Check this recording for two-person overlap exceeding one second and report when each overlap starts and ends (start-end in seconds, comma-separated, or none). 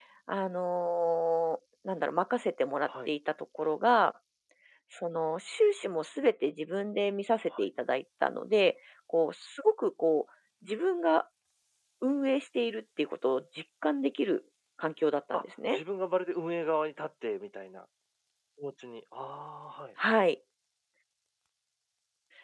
none